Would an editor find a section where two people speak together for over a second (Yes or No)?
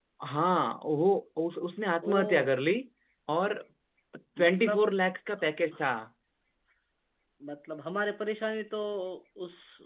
No